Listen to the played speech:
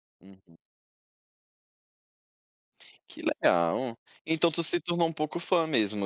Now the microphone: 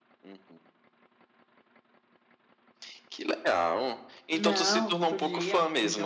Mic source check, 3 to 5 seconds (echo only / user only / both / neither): both